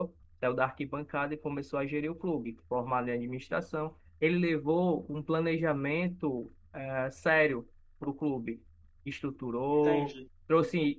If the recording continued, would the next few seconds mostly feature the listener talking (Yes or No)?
No